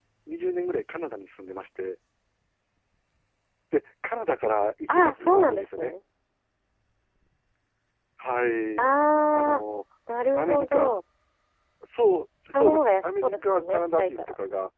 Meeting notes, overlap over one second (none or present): present